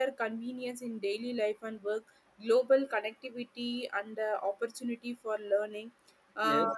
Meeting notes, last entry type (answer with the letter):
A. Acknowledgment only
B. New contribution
A